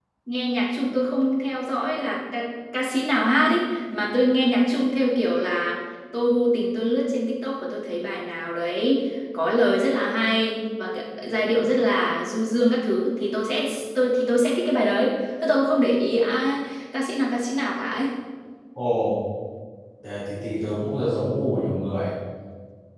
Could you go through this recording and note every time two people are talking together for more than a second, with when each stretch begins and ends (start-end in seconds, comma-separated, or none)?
none